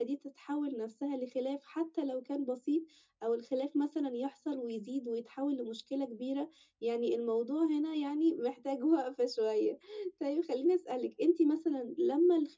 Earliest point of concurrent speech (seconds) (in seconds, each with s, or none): none